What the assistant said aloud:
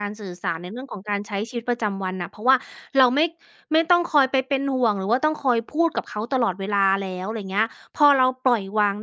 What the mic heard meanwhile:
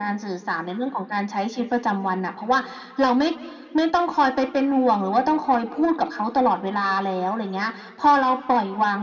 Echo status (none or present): present